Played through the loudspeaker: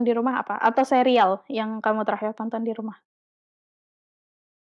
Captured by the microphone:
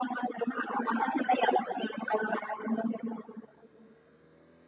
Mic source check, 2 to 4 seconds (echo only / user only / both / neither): echo only